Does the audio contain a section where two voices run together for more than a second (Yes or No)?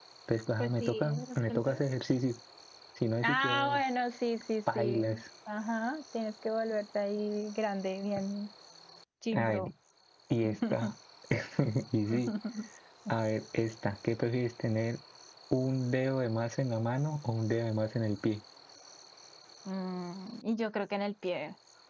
Yes